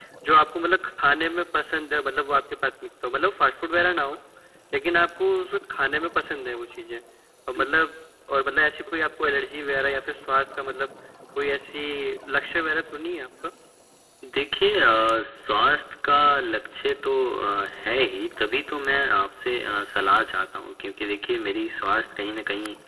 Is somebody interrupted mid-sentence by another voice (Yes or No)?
No